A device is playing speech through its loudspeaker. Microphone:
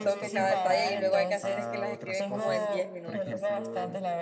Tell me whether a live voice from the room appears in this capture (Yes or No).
Yes